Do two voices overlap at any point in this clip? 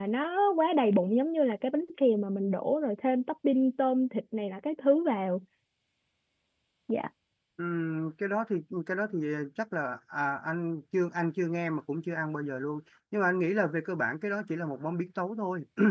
No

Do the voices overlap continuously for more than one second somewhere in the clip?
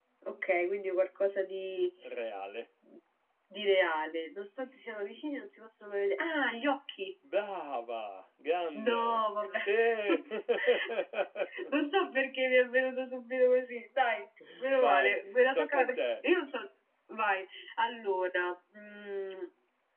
Yes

